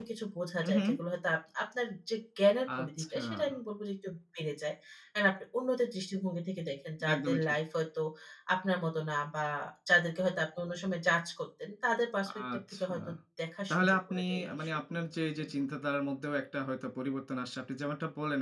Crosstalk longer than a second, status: present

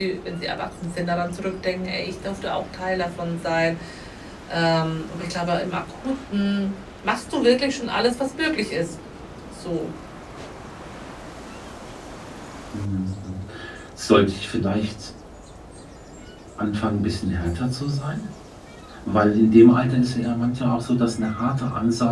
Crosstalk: none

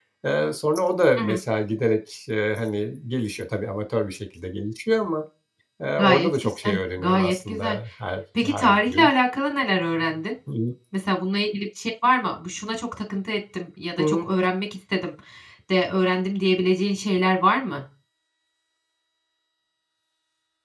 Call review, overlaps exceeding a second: present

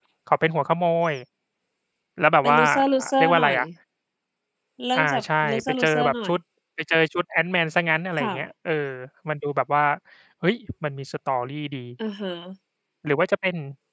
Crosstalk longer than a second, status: present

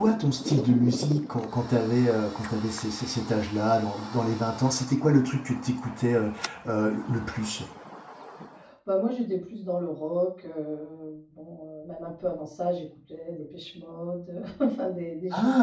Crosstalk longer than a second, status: none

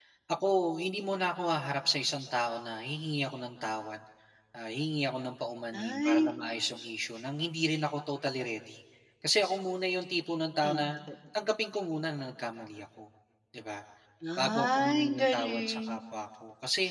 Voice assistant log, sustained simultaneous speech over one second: present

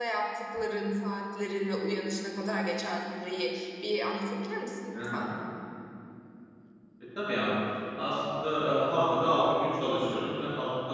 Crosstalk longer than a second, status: none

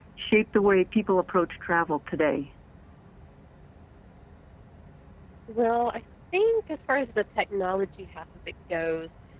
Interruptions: none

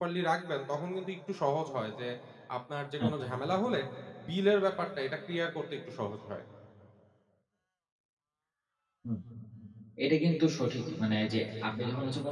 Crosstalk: none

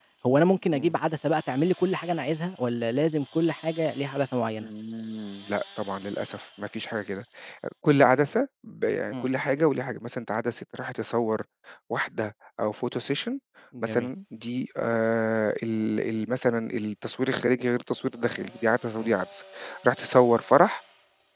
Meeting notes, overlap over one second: none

